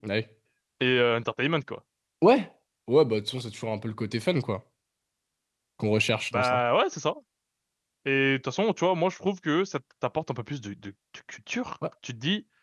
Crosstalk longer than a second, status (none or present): none